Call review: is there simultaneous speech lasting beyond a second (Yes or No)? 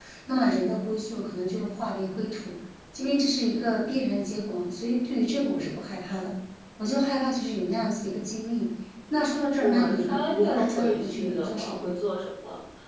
Yes